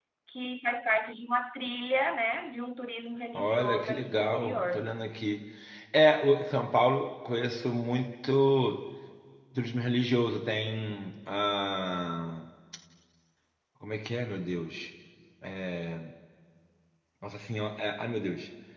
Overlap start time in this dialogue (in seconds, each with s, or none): 3.3 s